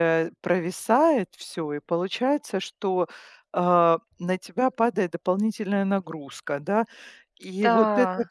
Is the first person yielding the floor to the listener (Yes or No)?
No